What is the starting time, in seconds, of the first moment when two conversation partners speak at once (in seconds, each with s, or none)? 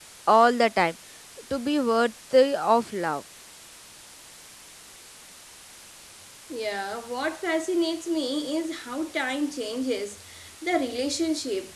none